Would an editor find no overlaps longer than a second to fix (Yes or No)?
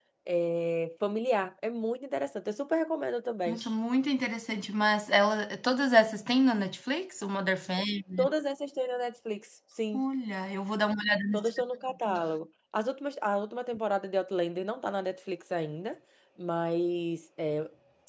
Yes